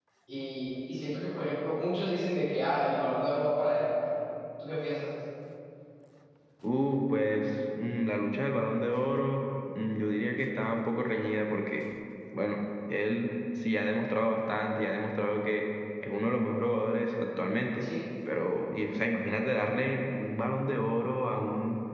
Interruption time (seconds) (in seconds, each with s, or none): none